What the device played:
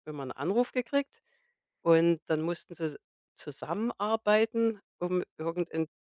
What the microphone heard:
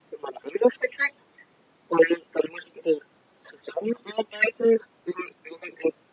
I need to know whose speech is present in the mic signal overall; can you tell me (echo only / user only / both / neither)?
echo only